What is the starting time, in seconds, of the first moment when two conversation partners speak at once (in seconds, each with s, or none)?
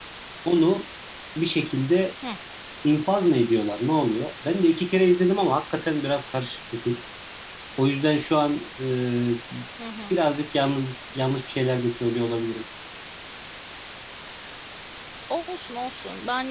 none